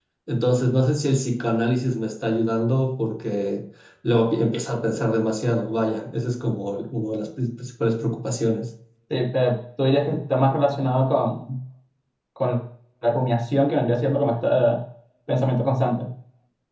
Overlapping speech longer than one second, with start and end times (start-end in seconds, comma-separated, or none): none